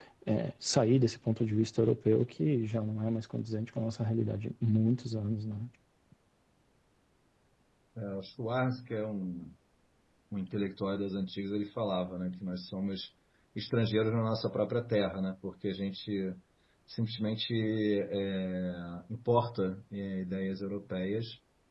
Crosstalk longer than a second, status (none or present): none